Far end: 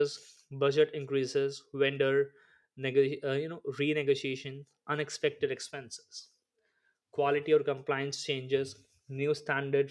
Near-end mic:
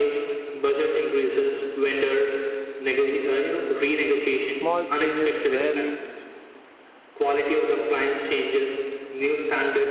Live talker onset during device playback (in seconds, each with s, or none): 4.5 s